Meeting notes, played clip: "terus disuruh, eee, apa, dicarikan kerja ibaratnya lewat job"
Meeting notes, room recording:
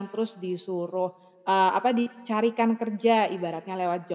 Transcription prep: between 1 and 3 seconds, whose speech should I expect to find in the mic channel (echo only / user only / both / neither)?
echo only